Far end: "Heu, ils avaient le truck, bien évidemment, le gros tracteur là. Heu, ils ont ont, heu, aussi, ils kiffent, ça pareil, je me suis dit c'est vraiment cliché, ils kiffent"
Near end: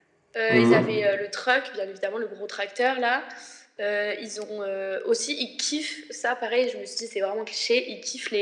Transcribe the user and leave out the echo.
Mmh mh.

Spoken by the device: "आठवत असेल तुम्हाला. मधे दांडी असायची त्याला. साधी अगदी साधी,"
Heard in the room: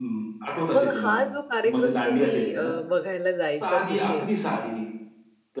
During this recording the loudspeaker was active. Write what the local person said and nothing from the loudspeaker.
मग हा जो कार्यक्रम तुम्ही अ, बघायला जायचा तिथे,

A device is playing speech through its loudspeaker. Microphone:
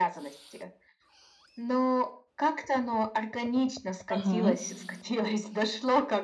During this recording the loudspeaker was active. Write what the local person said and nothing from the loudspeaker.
Мгм.

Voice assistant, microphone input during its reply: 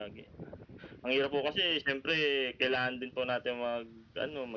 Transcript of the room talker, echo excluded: none

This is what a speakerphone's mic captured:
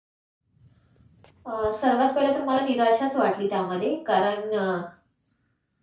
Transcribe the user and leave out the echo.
अ, सर्वात पहिलं तर मला निराशाच वाटली त्यामध्ये. कारण अ,

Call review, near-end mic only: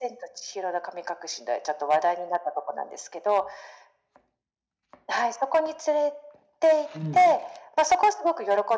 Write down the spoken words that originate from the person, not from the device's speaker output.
うん。

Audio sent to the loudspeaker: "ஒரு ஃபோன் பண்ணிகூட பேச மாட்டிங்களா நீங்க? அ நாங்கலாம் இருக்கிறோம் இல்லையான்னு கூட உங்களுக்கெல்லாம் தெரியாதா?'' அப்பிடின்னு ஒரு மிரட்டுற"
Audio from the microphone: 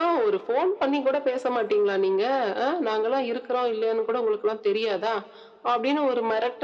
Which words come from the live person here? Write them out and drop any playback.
none

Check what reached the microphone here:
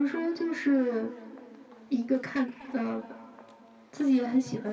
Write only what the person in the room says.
none

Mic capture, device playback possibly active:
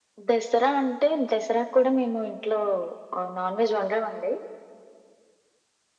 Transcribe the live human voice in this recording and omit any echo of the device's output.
none

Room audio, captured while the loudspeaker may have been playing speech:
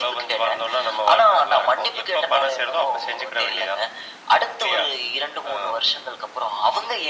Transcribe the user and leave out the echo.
none

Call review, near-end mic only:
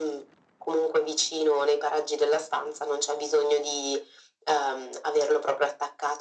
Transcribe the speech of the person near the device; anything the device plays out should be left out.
none

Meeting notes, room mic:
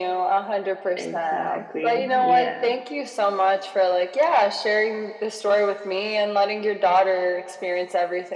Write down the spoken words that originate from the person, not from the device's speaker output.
Exactly, yeah.

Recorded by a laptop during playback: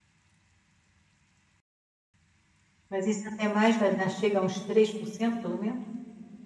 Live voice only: Mas isso, até mais vai dar chega a uns 3% pelo menos.

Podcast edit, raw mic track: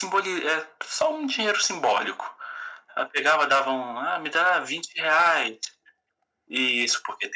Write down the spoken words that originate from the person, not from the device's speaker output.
none

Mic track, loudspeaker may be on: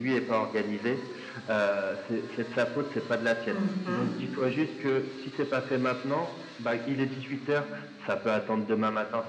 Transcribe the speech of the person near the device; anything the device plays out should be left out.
Mmh mh.

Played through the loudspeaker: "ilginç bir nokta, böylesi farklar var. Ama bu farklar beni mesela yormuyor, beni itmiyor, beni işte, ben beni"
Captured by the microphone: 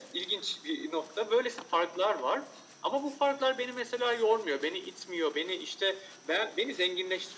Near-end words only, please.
none

